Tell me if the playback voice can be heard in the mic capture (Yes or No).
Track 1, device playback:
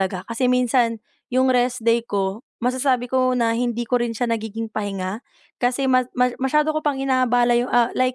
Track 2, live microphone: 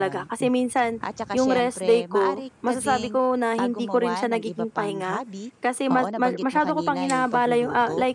Yes